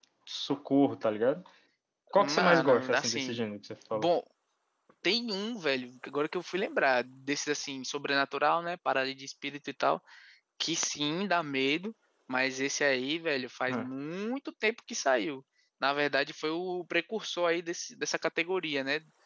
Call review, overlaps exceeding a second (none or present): present